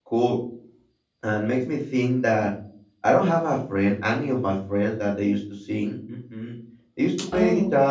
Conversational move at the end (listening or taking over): listening